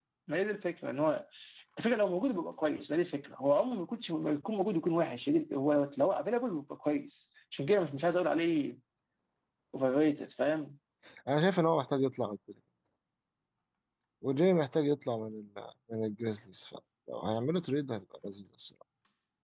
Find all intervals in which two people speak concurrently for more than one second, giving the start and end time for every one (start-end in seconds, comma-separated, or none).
none